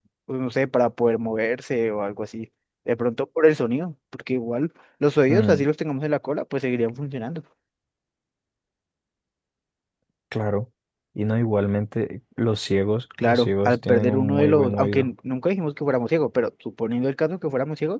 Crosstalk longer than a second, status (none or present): present